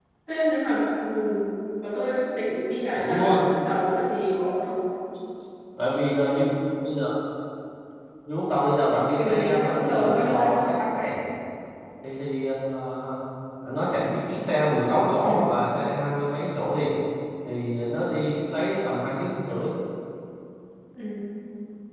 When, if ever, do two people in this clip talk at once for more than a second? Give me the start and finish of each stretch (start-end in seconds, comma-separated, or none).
9.2-10.5